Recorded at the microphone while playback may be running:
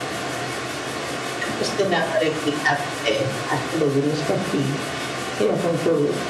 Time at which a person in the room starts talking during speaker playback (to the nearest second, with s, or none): none